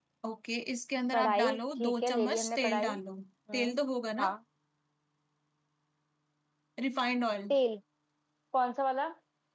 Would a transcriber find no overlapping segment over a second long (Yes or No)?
No